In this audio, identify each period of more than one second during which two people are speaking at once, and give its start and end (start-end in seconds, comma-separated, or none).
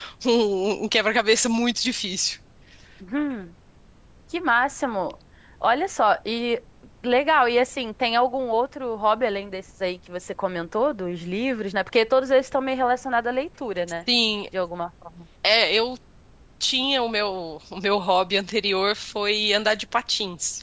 none